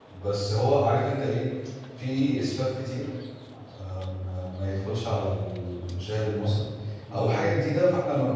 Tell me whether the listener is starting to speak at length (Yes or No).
No